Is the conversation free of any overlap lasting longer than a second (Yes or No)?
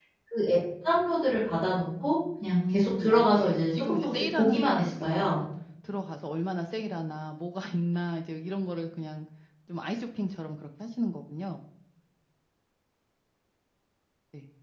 No